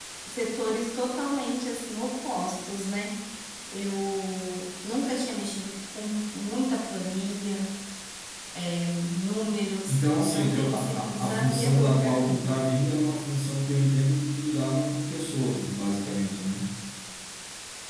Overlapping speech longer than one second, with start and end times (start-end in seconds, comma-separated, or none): 9.9-12.5